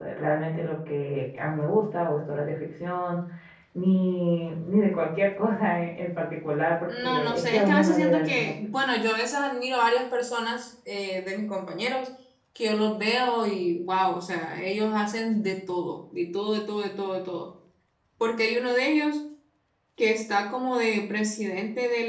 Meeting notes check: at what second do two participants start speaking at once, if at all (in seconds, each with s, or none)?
6.9 s